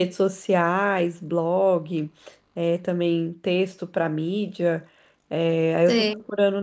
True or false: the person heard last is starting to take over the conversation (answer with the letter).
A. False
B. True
A